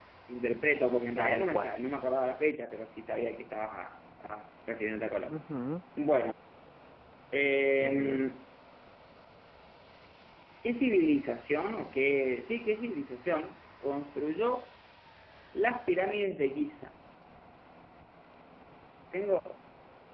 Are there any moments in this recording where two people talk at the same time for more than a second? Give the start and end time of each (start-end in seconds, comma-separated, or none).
none